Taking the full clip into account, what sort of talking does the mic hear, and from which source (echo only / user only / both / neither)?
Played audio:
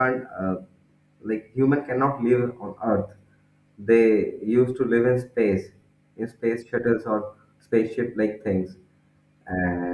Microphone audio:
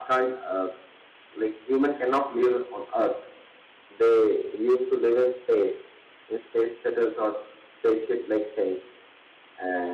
echo only